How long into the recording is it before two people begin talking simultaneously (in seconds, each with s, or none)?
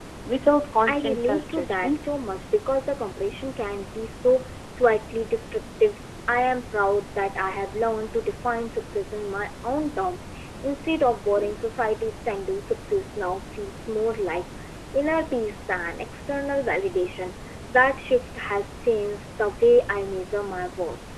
0.8 s